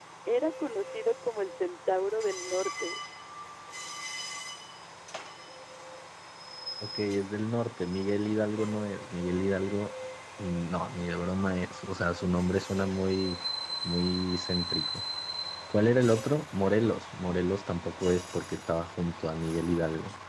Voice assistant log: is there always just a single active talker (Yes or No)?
Yes